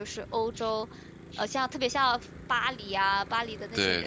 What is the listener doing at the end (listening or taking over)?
listening